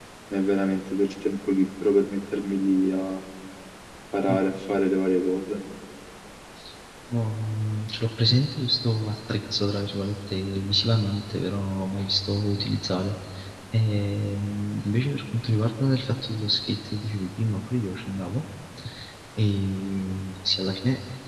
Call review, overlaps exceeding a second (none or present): none